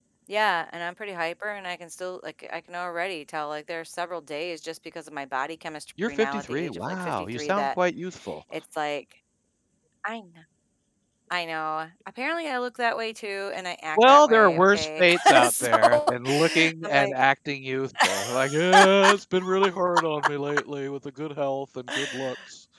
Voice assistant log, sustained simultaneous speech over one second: present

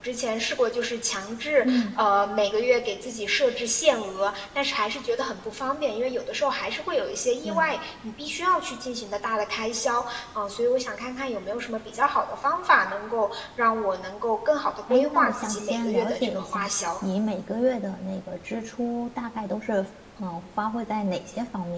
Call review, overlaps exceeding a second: present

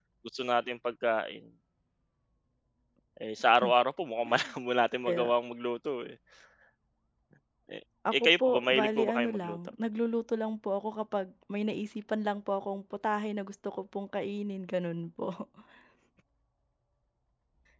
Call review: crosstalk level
present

